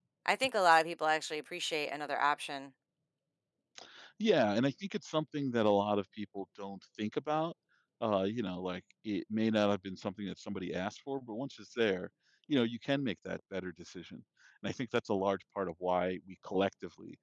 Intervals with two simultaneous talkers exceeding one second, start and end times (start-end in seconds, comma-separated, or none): none